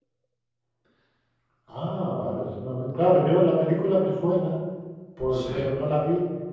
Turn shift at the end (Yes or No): No